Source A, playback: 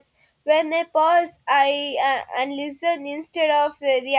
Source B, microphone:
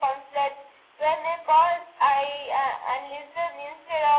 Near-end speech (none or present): none